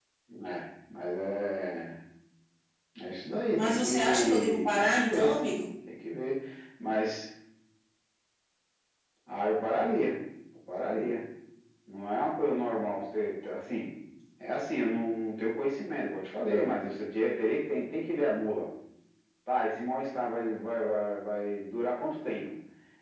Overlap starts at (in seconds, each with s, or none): 3.5 s